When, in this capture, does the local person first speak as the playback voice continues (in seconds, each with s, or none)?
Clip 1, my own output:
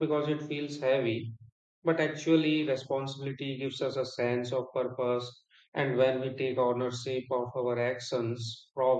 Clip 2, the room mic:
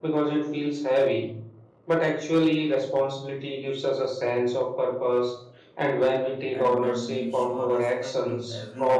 6.5 s